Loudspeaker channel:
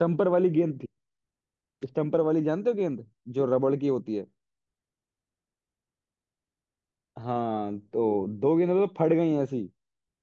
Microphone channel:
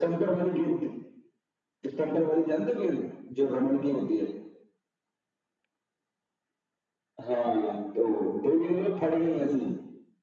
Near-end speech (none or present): none